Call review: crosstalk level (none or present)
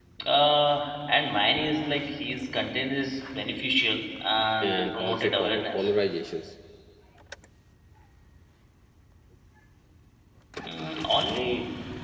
present